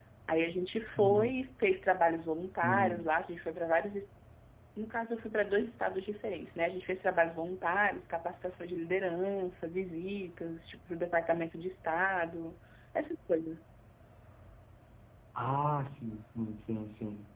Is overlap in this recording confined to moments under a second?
Yes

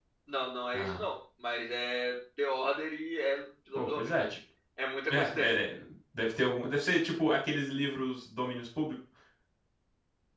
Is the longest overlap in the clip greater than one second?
No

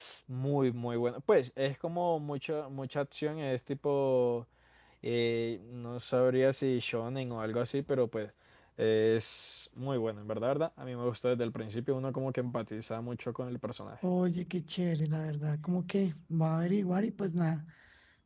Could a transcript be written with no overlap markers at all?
Yes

